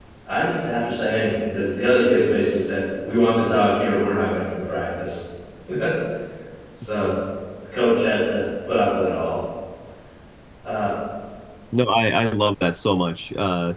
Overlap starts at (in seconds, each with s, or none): none